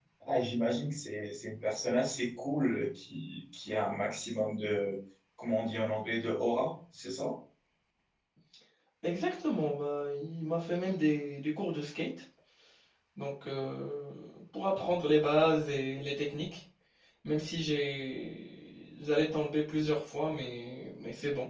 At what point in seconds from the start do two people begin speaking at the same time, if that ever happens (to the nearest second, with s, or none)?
none